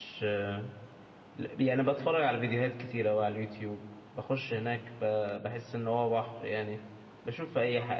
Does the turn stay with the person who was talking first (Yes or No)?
Yes